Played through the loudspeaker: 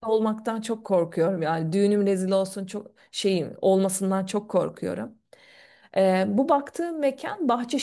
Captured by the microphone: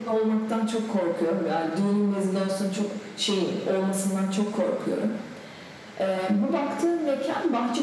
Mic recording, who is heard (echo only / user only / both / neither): echo only